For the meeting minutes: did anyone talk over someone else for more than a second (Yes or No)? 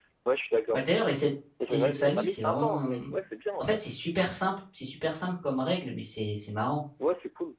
Yes